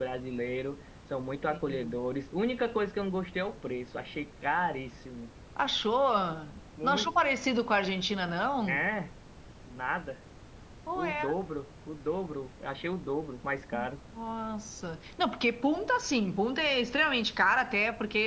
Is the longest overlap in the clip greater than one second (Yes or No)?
No